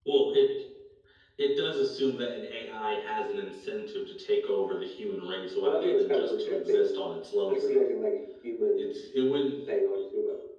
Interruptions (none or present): present